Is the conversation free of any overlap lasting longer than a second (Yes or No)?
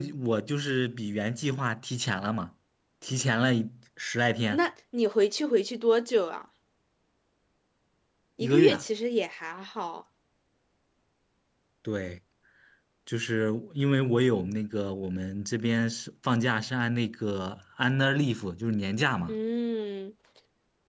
Yes